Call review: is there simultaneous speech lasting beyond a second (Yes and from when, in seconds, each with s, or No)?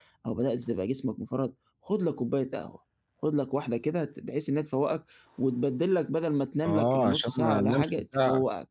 Yes, from 6.6 s